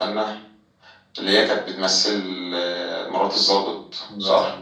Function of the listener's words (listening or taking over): taking over